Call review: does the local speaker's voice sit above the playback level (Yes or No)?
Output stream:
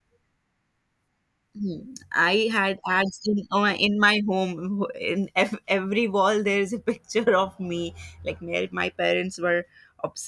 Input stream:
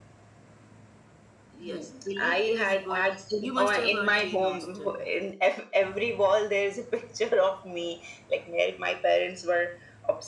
No